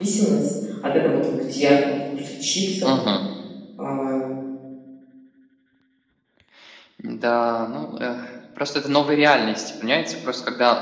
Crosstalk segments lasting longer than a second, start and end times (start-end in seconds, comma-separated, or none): none